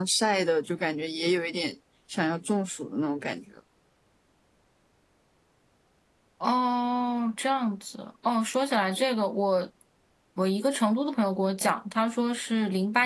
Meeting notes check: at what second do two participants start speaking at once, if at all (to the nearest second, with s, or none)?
none